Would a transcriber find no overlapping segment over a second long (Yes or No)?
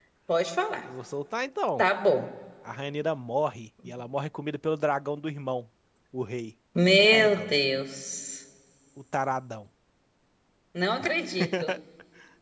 Yes